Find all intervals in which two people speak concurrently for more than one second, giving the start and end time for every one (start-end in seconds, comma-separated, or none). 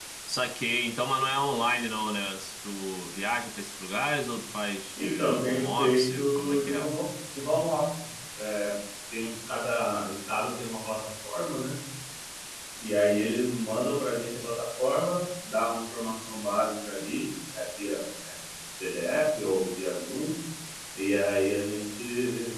5.0-6.9